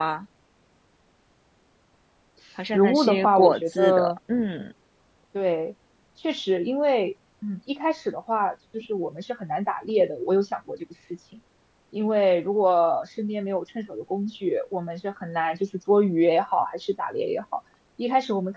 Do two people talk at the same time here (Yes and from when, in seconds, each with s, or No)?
Yes, from 2.7 s